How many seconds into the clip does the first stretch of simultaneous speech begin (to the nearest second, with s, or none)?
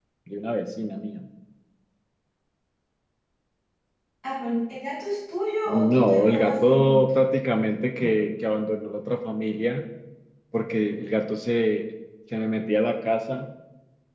6 s